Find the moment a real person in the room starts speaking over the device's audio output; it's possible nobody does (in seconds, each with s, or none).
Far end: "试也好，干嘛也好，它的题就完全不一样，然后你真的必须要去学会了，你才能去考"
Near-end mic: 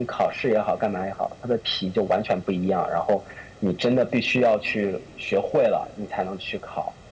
none